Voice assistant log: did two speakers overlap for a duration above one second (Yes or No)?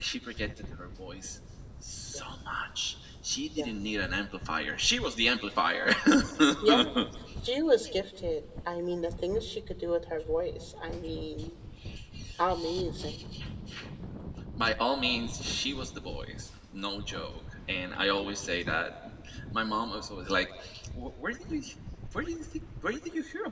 No